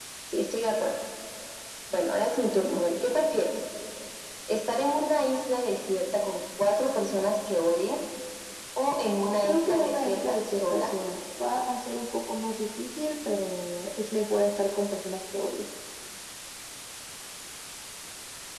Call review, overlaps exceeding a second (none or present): present